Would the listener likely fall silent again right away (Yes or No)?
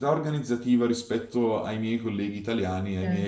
Yes